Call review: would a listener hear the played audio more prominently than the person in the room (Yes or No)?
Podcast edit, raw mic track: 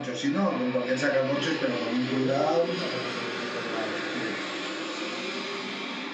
Yes